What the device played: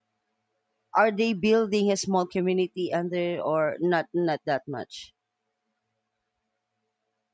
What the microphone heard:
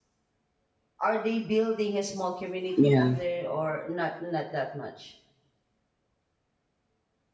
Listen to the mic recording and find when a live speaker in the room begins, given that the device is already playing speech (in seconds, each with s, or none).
2.8 s